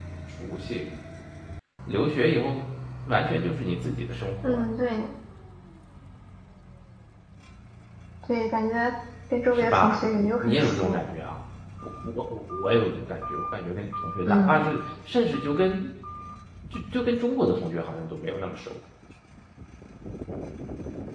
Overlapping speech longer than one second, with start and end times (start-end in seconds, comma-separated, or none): 9.5-11.0